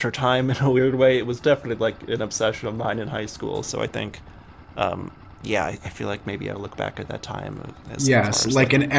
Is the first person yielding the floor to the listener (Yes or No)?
Yes